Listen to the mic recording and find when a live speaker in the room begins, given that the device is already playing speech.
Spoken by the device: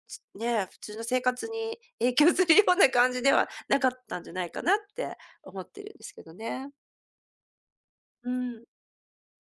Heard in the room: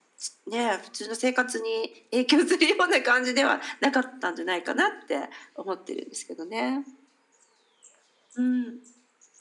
none

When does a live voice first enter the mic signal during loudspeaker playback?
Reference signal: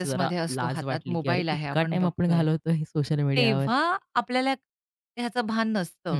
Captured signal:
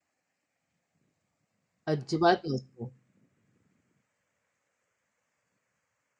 1.9 s

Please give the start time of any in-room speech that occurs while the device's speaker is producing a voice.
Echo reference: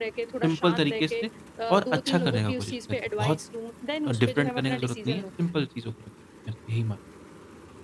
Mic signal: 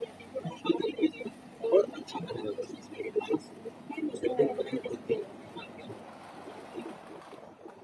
4.3 s

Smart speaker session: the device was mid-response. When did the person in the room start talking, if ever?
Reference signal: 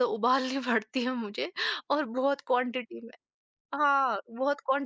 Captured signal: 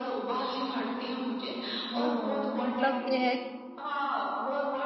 2.0 s

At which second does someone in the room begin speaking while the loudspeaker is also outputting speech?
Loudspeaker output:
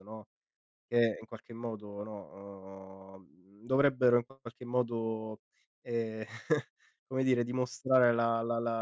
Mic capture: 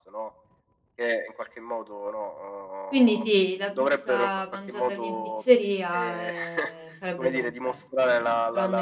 2.9 s

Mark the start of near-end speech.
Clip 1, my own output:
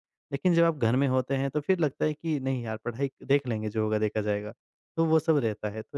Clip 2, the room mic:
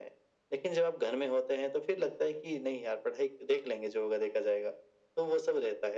none

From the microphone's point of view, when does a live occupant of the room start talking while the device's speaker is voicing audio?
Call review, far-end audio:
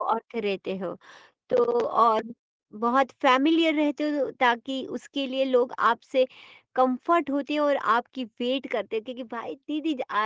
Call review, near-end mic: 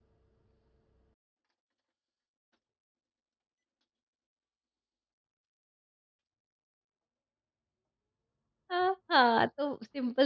8.7 s

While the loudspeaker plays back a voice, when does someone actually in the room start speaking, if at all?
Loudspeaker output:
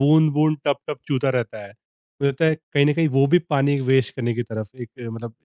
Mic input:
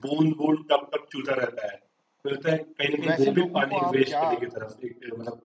3.0 s

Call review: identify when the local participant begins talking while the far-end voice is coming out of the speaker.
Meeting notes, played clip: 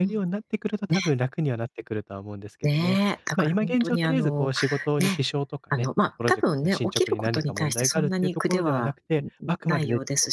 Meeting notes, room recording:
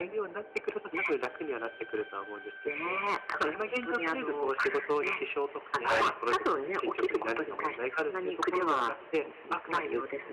5.8 s

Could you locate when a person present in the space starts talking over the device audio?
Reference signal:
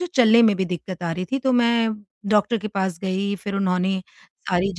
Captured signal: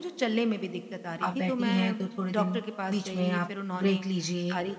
1.2 s

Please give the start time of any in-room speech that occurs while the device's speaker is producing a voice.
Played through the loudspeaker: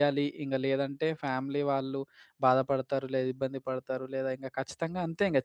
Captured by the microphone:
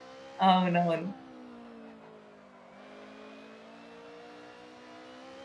0.5 s

